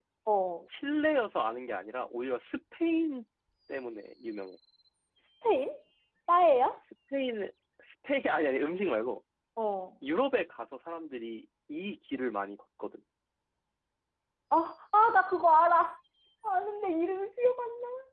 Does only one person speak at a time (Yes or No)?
Yes